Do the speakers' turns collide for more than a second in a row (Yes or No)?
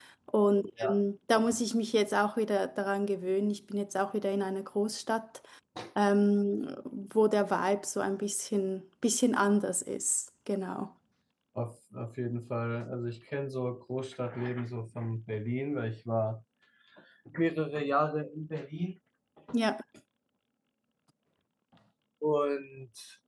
No